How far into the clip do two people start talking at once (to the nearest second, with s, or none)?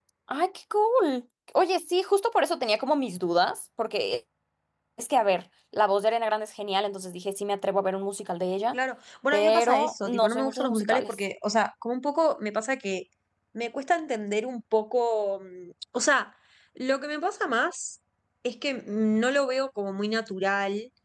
9 s